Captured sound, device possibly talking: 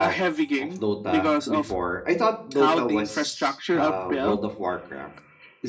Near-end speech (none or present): present